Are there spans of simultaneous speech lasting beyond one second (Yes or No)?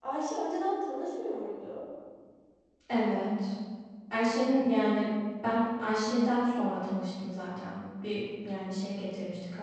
No